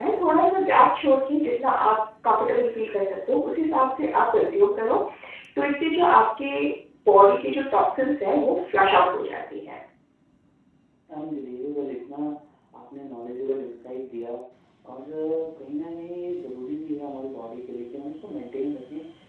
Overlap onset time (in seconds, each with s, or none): none